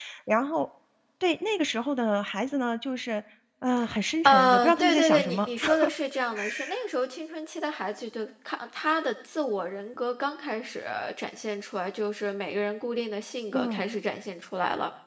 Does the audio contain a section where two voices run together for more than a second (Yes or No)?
Yes